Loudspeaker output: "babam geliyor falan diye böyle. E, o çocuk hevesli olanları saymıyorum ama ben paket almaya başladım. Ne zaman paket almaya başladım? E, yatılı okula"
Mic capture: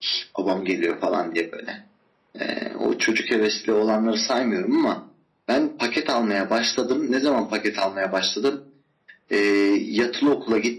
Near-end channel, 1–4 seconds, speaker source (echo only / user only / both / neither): echo only